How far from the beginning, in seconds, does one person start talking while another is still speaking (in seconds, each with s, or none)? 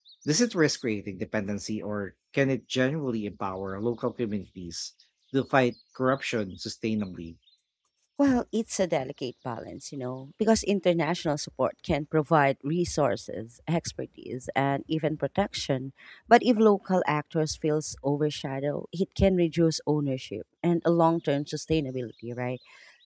none